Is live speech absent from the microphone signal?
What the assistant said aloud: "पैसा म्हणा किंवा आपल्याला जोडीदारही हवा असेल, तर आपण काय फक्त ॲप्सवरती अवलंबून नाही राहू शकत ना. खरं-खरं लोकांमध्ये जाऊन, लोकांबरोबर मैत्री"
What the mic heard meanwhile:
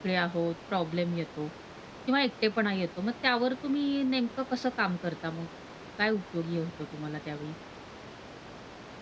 No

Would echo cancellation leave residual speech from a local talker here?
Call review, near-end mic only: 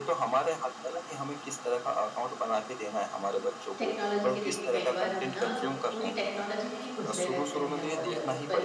Yes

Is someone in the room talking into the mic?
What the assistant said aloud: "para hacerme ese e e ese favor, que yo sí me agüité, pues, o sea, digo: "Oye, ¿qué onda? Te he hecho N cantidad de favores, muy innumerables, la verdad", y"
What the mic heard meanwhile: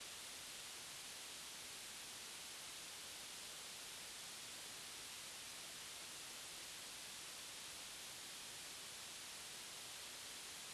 No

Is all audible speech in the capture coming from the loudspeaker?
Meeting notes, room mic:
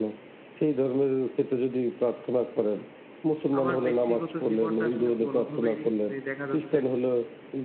No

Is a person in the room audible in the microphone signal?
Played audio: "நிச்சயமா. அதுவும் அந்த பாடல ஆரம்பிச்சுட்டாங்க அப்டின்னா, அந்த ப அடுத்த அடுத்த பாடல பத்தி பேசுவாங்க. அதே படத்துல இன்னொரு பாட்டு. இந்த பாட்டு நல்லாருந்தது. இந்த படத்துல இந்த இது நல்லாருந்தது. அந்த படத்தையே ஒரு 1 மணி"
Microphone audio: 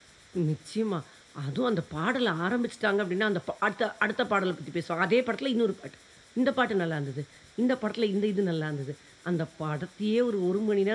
No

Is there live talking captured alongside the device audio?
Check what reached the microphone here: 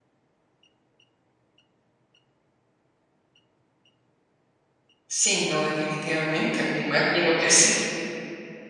Yes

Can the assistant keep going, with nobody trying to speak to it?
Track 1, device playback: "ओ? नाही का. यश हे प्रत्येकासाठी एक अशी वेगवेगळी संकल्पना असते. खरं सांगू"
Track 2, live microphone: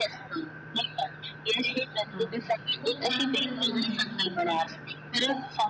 No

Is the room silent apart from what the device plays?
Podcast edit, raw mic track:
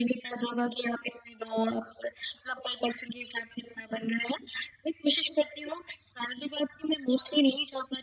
Yes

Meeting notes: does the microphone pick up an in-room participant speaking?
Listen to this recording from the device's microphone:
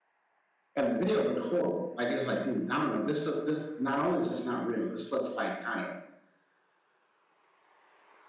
Yes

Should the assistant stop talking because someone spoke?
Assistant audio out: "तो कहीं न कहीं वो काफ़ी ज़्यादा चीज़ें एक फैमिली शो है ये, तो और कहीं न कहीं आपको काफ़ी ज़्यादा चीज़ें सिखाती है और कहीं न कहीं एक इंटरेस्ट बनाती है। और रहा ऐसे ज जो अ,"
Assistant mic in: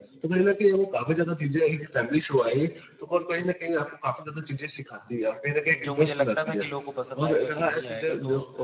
Yes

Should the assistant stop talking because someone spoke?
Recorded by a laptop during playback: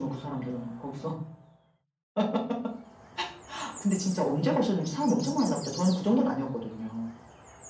No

